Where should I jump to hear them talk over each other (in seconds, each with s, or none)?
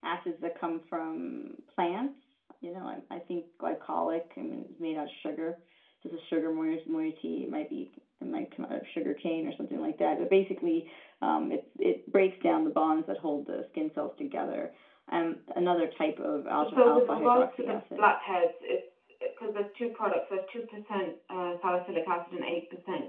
16.6 s